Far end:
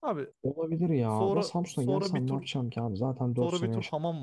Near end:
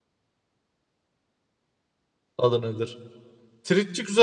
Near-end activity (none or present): present